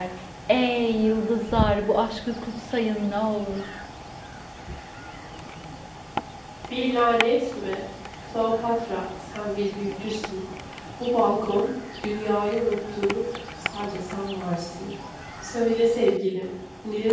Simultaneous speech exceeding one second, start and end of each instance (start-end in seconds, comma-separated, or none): none